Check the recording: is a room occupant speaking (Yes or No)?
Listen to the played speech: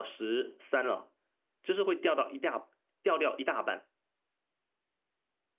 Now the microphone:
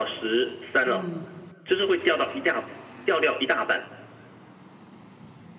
Yes